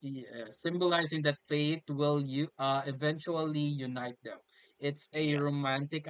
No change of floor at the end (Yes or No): Yes